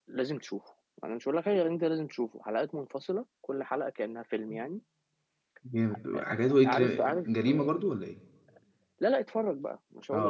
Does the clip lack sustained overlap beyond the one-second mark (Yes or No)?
No